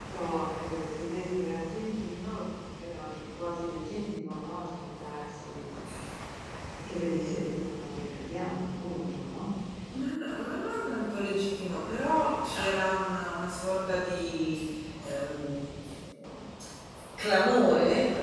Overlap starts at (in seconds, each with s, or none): none